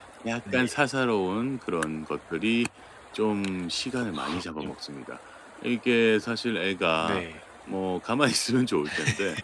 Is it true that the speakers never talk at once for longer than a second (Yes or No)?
Yes